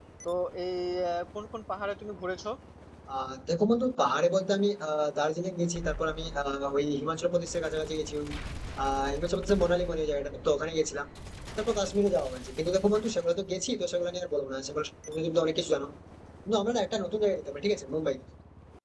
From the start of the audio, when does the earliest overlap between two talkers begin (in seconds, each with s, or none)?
none